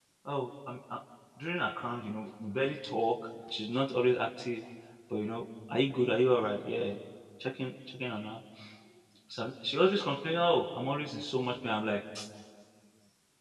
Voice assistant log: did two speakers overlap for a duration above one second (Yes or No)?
No